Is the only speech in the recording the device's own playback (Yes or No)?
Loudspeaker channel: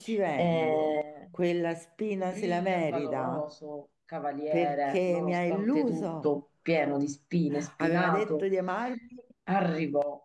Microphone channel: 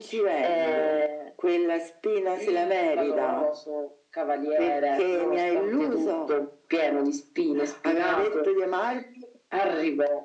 Yes